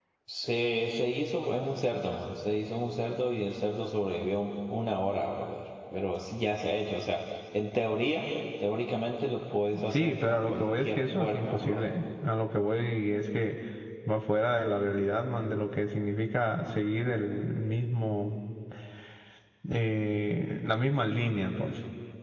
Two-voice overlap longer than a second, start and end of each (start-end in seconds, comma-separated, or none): 9.9-11.9